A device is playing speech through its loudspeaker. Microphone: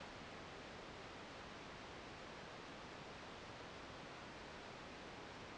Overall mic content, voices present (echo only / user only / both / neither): neither